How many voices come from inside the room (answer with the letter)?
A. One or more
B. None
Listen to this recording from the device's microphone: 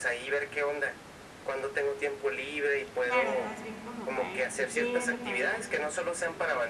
A